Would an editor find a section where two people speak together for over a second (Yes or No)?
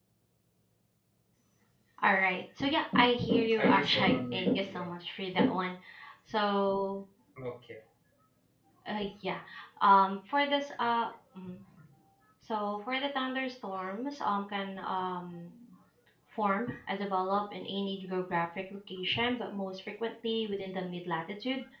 Yes